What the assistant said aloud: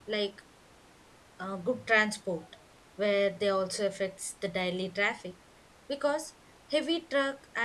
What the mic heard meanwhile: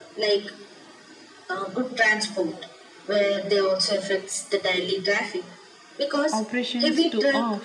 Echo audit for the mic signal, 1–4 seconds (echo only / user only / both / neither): echo only